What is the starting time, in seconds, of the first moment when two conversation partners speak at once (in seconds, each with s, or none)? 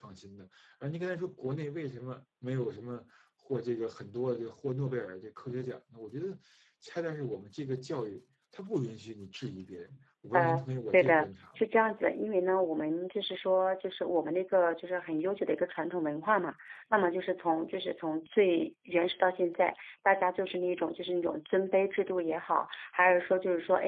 10.3 s